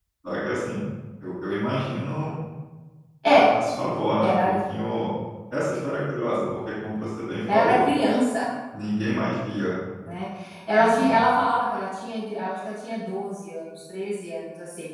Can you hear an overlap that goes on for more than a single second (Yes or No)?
No